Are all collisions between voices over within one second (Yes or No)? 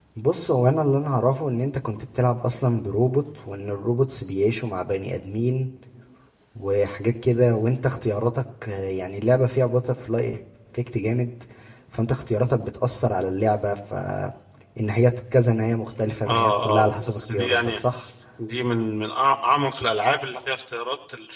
No